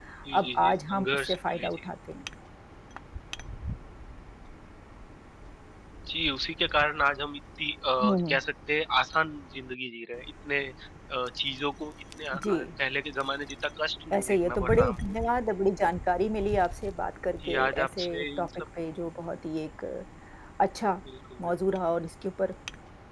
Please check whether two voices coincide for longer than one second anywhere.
Yes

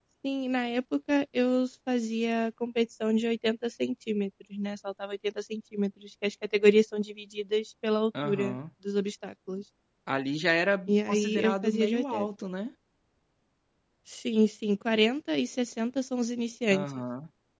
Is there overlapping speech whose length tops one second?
Yes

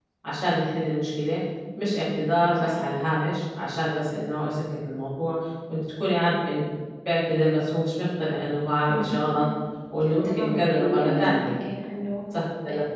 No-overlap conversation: No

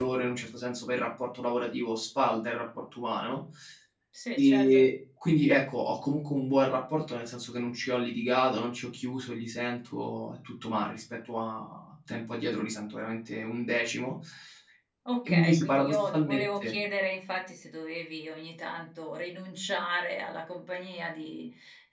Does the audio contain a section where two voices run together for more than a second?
Yes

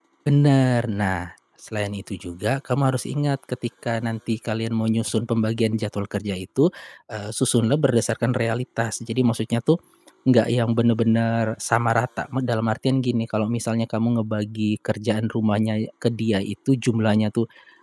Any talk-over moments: No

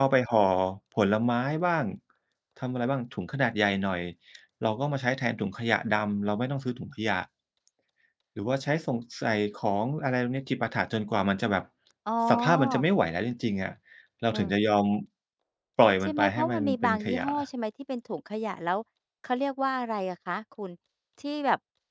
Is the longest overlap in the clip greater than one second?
Yes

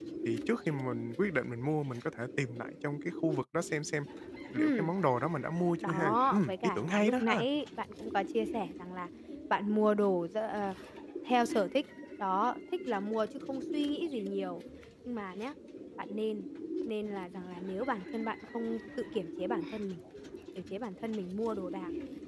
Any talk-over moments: Yes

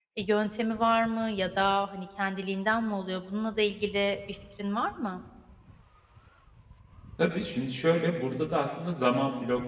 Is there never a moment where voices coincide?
Yes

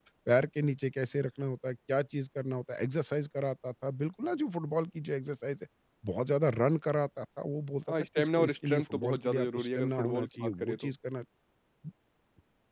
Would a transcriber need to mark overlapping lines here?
Yes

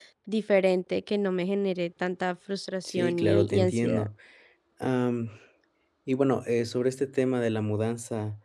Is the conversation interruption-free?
No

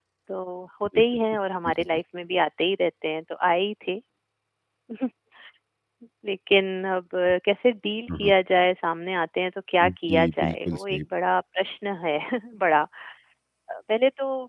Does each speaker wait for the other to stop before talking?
No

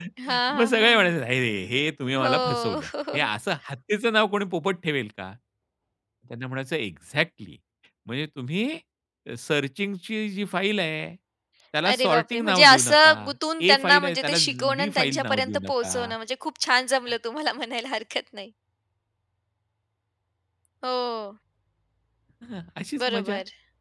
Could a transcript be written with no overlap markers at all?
No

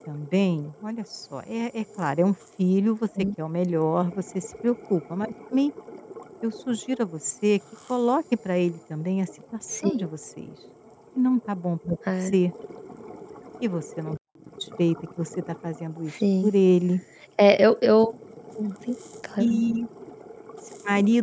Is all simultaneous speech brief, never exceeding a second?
Yes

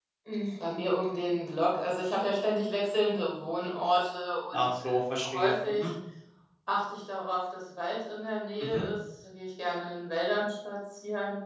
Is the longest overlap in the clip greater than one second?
Yes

